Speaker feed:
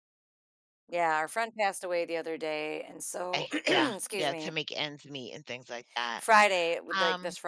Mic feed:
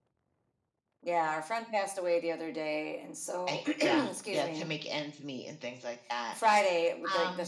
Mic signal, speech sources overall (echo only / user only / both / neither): echo only